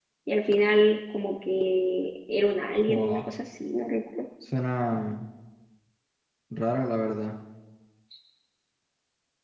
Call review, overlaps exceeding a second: none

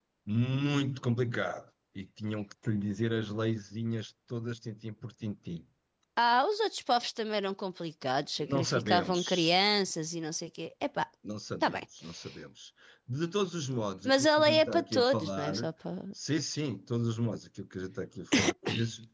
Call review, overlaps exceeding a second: present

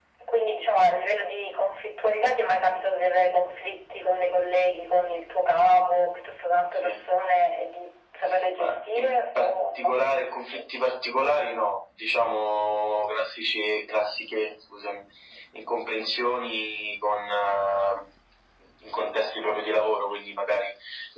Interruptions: present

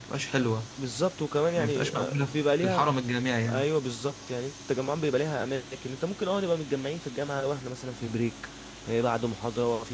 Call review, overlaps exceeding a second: present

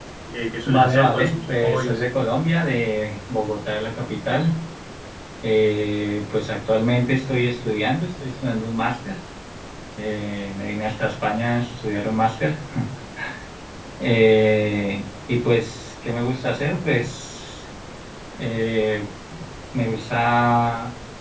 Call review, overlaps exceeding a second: present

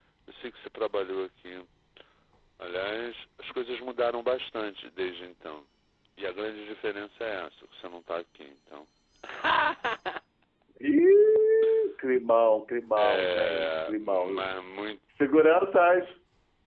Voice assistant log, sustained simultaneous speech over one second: present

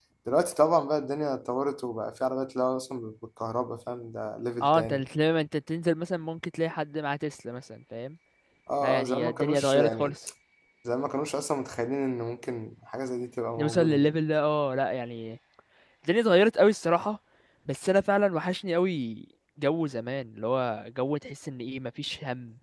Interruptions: present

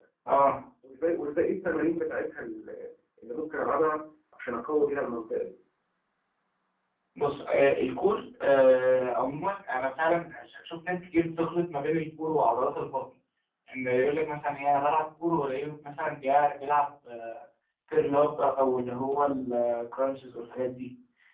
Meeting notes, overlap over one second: none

